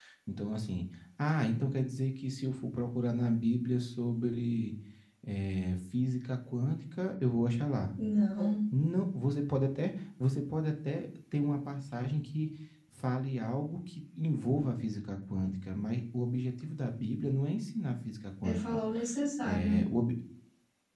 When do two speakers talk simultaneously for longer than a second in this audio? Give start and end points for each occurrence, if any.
none

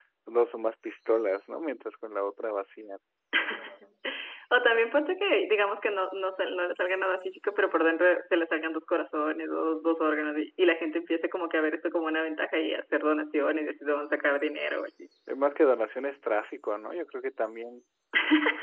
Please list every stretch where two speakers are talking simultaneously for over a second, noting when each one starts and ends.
none

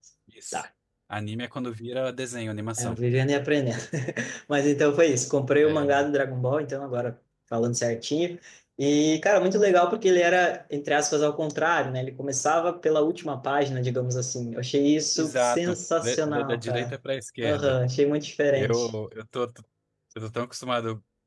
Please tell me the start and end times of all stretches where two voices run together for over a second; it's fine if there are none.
15.2-16.9

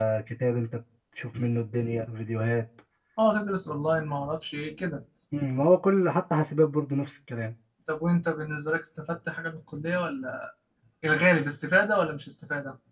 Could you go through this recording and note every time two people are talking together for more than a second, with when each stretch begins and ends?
none

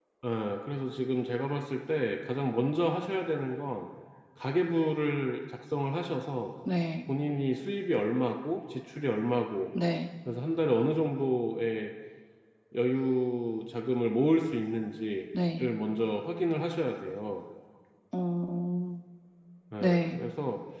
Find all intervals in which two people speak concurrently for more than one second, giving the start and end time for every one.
none

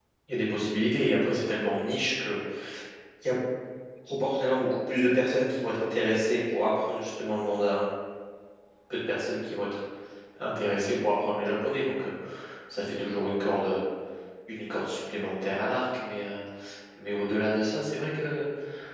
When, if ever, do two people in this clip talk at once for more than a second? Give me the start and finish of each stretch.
none

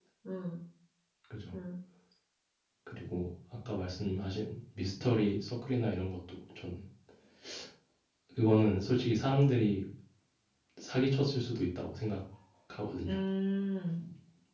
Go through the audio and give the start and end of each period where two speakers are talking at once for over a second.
none

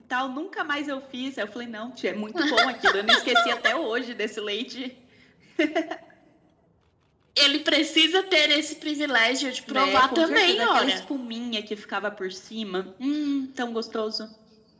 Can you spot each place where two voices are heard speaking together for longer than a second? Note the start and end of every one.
9.7-11.0

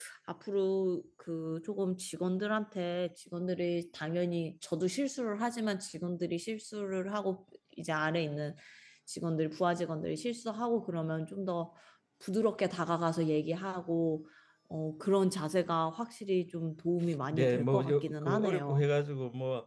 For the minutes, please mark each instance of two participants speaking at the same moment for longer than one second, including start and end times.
17.3-18.8

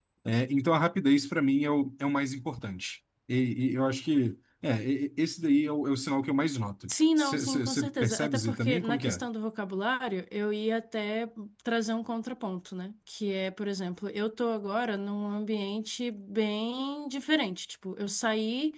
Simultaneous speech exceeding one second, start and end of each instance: 7.2-9.2

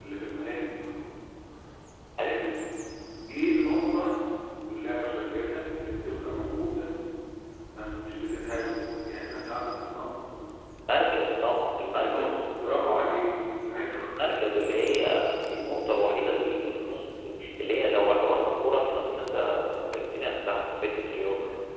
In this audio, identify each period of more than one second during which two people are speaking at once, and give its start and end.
none

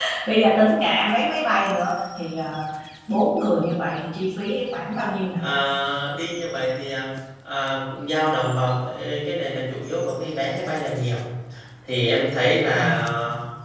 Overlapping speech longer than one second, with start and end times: none

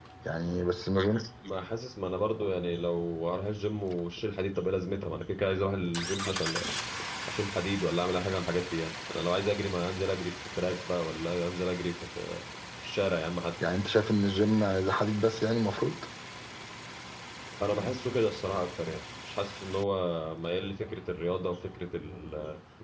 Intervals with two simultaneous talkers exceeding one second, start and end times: none

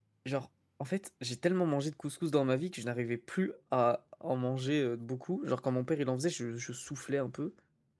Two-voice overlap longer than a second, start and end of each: none

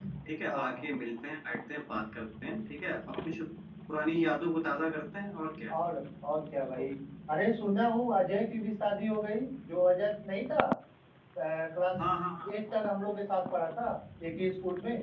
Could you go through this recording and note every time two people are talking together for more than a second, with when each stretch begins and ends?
none

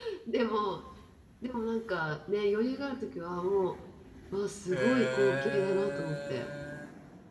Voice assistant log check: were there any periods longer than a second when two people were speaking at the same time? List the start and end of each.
4.7-6.5

